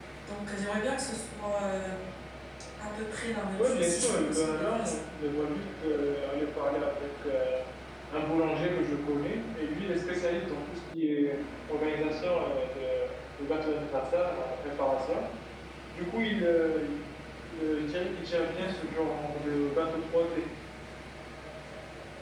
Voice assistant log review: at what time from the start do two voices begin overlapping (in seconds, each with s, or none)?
3.6 s